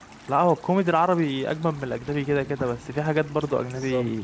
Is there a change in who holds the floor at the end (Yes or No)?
No